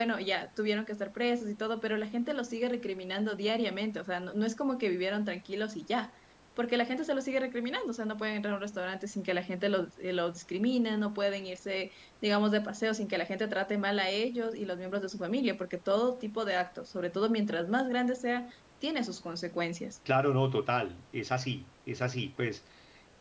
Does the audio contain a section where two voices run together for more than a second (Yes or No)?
No